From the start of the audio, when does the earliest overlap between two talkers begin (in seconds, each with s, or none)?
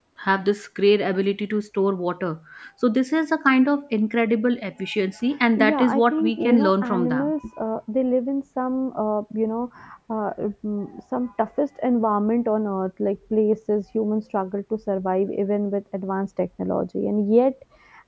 5.6 s